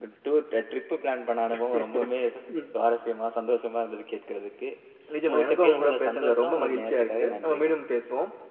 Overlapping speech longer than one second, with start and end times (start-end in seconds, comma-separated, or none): 5.3-7.7